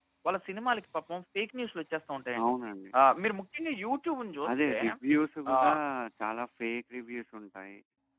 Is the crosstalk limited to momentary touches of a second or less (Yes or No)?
Yes